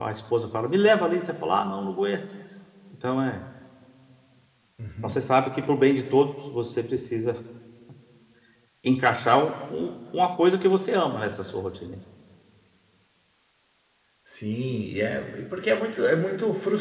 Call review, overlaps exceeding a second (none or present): none